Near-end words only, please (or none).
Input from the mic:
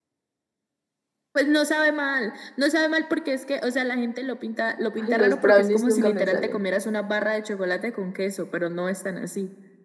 Ay, los brownies nunca me salen.